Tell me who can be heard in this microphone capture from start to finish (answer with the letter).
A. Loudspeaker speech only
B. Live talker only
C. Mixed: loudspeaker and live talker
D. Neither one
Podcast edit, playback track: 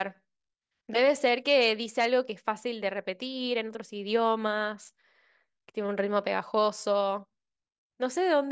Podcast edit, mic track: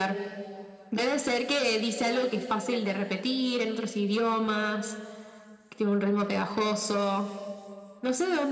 C